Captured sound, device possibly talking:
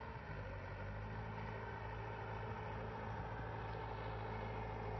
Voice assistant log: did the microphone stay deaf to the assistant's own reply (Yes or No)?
Yes